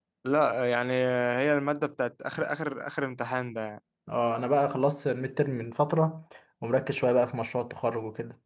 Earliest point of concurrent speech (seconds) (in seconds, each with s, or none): none